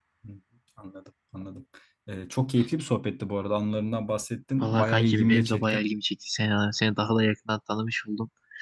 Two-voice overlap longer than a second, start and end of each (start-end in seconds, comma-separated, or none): 4.6-5.8